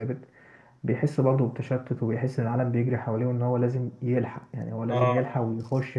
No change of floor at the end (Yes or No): Yes